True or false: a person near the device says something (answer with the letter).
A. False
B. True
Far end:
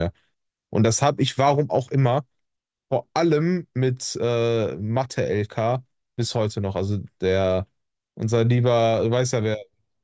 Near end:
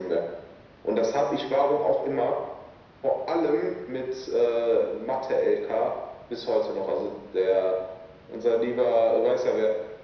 A